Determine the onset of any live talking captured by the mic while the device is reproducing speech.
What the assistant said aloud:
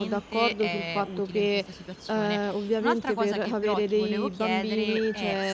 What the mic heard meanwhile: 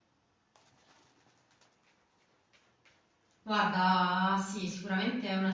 3.5 s

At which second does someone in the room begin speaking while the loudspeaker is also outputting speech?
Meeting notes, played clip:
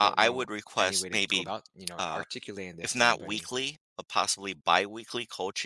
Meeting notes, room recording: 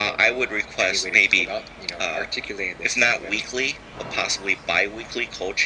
none

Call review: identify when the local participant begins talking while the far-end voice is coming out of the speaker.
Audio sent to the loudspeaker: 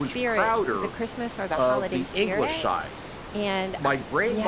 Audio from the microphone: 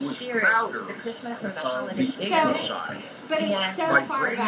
2.2 s

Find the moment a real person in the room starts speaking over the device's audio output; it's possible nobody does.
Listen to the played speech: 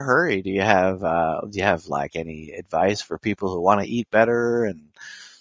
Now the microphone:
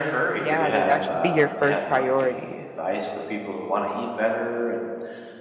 0.4 s

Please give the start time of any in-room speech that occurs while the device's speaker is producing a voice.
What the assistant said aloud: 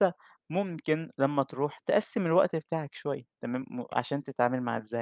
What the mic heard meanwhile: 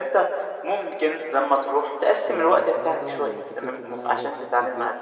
2.3 s

